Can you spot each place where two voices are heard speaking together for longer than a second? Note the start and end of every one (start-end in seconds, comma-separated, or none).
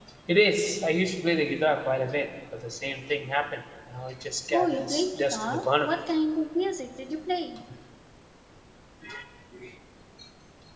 4.5-5.9